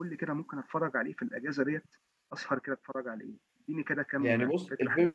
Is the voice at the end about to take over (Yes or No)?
Yes